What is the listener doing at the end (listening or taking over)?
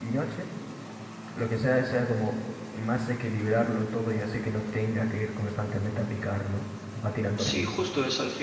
taking over